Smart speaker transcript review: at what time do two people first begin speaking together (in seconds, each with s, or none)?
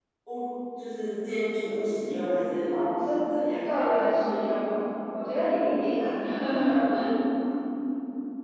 none